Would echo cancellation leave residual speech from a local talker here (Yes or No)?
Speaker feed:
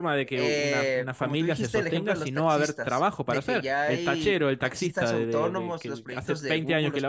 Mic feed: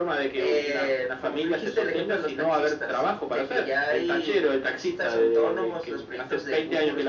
No